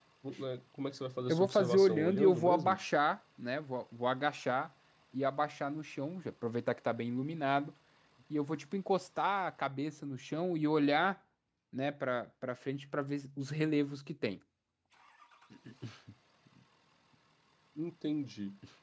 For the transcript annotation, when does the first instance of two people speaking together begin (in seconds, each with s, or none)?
1.3 s